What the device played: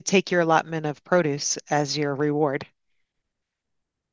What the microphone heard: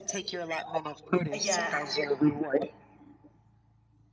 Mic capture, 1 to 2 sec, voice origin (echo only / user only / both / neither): both